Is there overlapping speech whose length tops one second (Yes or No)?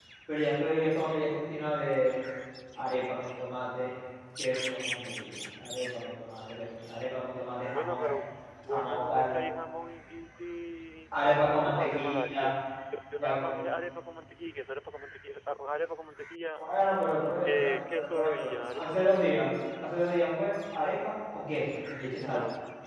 Yes